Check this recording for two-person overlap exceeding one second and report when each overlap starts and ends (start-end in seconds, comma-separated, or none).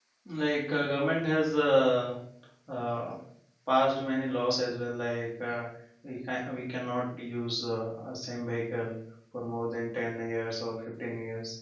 none